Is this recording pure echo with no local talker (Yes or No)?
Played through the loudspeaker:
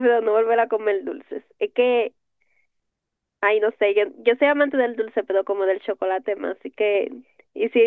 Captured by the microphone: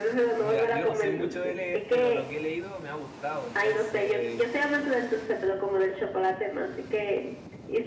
No